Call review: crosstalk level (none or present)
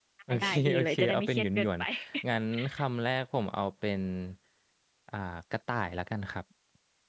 present